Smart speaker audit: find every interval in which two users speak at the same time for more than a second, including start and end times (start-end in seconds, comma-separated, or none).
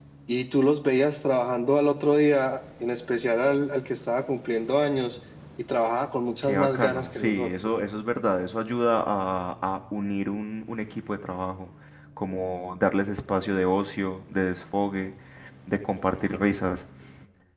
6.4-7.7